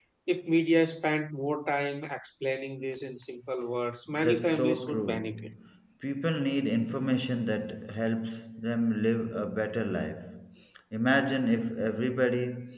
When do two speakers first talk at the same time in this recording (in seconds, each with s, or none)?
4.1 s